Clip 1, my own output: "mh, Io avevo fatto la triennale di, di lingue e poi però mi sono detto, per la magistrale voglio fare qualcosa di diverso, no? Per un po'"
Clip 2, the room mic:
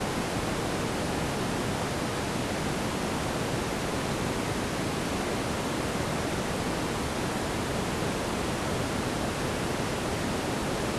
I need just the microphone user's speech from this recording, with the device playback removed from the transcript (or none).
none